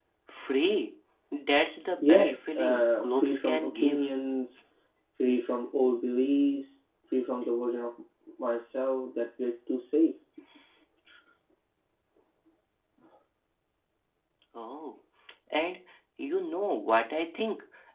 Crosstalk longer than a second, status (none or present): present